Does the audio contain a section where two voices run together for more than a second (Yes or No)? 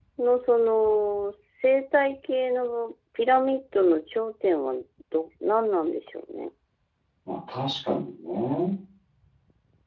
No